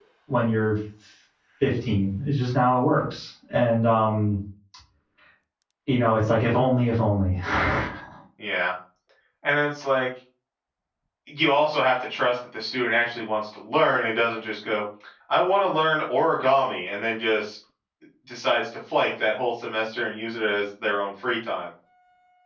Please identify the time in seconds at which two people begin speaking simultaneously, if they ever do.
none

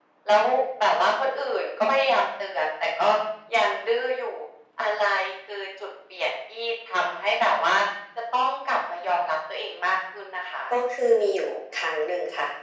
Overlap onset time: none

